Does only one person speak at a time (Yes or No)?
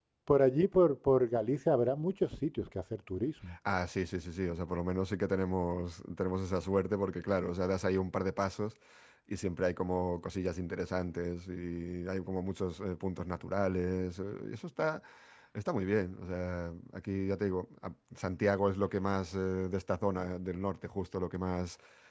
Yes